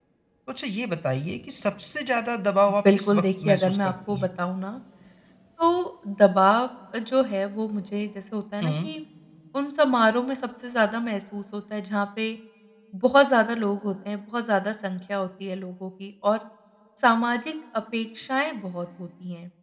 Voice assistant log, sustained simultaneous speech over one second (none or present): present